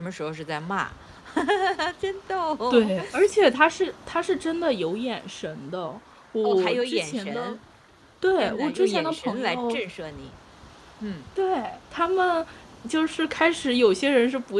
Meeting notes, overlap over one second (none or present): present